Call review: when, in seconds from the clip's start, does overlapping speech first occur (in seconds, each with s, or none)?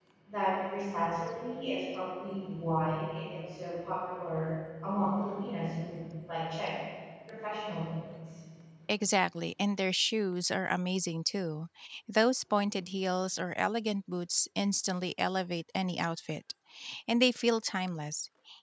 none